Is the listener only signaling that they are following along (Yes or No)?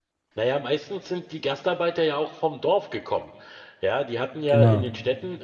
Yes